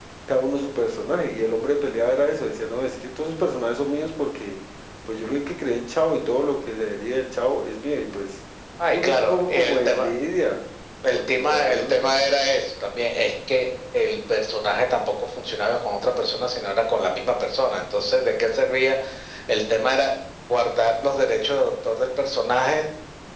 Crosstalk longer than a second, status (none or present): present